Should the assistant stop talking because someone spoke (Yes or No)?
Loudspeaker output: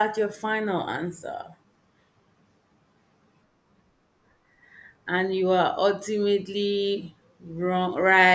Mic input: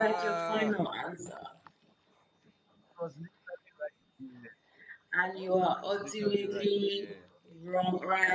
Yes